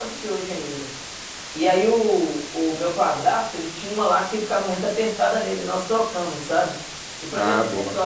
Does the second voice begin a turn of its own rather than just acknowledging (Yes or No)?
No